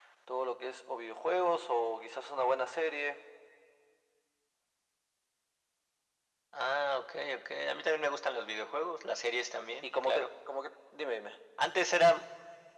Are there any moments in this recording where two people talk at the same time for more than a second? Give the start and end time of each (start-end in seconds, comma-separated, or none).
none